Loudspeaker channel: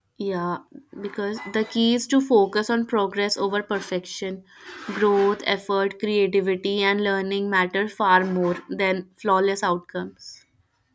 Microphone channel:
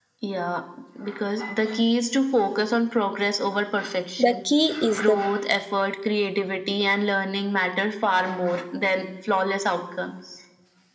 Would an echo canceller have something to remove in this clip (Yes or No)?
Yes